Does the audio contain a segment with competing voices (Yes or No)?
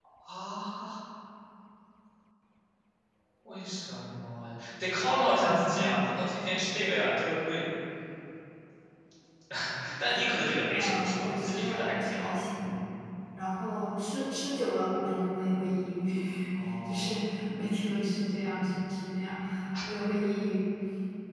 Yes